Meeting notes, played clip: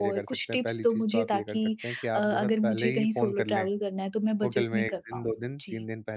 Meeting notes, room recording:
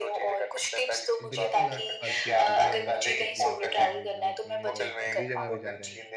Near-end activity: present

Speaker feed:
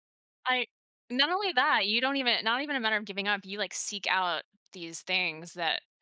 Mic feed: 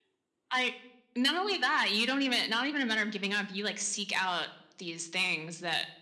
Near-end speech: none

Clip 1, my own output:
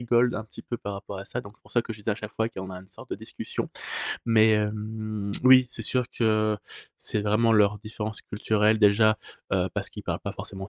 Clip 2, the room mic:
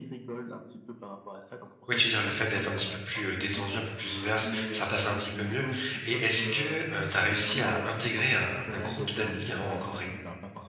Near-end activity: present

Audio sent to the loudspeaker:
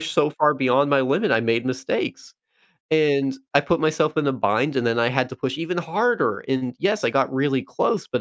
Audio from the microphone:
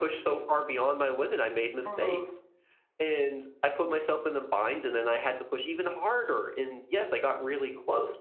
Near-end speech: present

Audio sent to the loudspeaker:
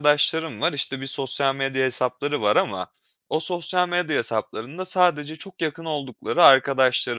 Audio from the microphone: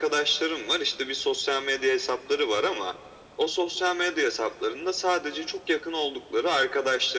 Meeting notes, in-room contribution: none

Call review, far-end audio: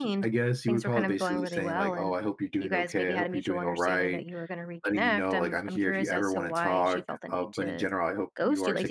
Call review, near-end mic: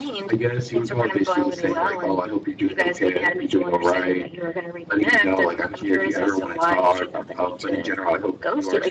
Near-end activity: none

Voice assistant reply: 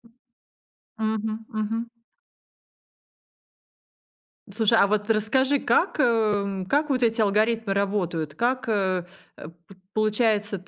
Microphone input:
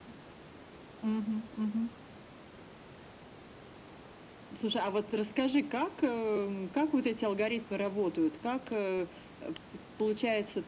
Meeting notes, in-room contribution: none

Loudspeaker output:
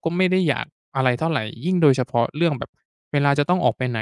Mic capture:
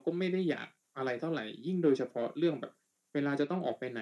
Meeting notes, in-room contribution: none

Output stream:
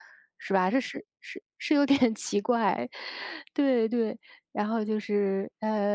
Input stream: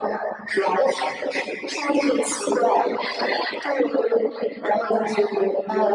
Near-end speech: none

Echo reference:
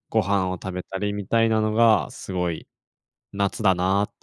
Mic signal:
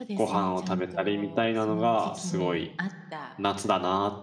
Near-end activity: present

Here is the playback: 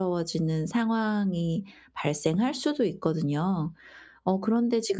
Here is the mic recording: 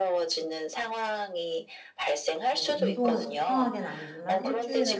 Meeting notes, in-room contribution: present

